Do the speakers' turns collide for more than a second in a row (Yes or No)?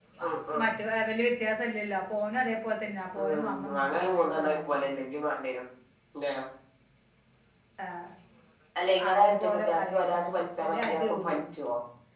Yes